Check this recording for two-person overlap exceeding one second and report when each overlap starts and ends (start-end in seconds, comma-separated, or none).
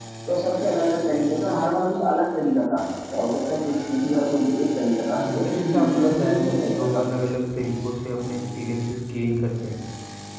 5.2-7.0